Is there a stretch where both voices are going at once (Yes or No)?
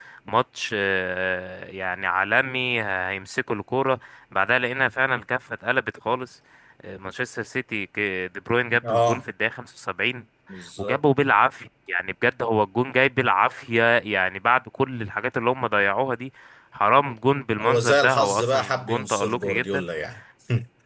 Yes